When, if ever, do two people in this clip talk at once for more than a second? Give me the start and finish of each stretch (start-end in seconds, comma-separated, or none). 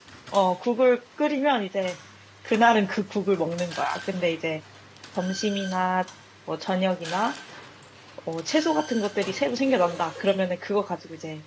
none